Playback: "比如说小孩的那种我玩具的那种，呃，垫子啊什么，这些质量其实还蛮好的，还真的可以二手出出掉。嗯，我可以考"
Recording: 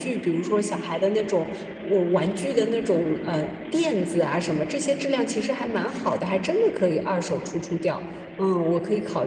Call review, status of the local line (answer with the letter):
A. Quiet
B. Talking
A